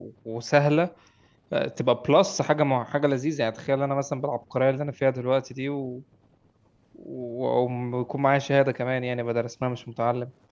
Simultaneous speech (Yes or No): No